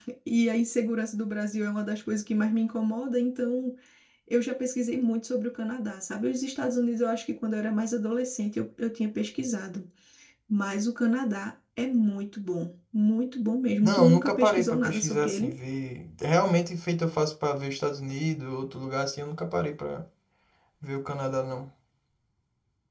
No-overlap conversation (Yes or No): No